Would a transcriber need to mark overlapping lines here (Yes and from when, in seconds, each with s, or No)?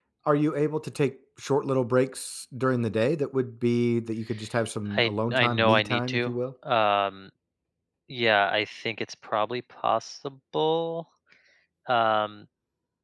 Yes, from 4.9 s